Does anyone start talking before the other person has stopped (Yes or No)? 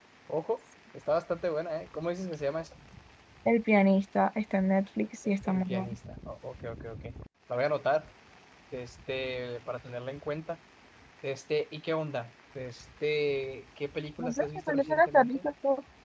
Yes